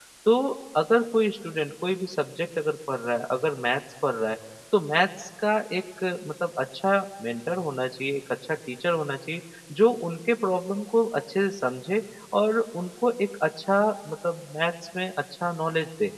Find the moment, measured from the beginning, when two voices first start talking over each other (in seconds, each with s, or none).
none